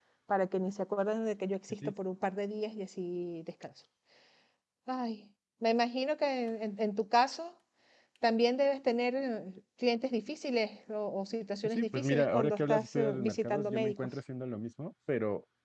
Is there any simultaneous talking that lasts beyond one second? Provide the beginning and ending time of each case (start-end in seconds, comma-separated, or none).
11.6-14.0